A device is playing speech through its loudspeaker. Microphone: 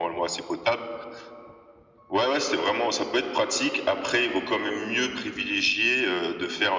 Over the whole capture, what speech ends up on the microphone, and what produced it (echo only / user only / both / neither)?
echo only